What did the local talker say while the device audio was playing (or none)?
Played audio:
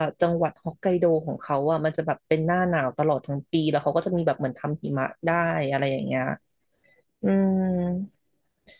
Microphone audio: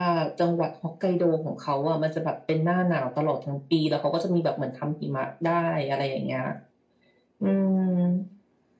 none